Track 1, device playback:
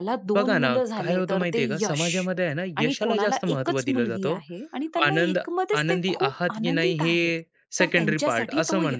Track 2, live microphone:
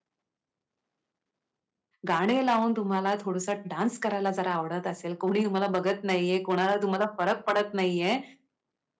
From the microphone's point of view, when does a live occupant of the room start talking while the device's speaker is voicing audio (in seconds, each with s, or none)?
2.1 s